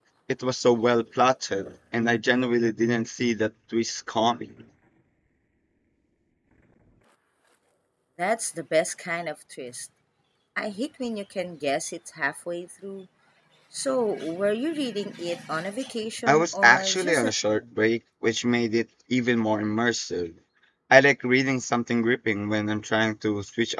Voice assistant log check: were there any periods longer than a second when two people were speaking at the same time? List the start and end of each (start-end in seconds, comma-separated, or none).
16.3-17.6